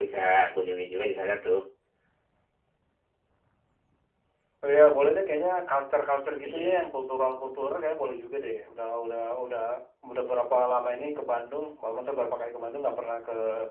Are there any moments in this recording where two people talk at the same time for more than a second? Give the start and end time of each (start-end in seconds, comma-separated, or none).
none